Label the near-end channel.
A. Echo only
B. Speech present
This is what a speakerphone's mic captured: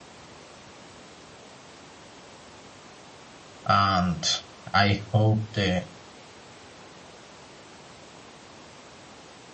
B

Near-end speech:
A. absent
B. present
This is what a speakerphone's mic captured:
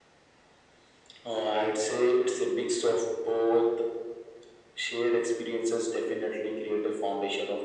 A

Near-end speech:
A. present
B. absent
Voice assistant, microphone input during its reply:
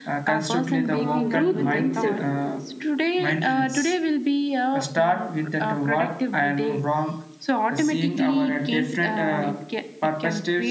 A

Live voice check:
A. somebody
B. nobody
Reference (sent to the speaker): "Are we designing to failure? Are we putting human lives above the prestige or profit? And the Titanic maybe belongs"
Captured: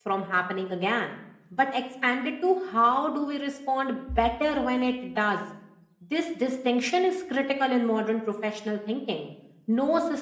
A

